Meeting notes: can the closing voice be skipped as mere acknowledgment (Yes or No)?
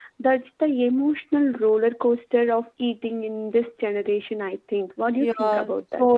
No